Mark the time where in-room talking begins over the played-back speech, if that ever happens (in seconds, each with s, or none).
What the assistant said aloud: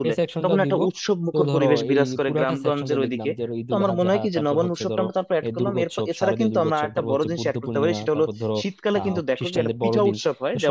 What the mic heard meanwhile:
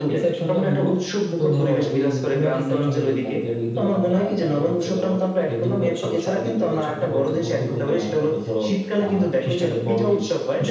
none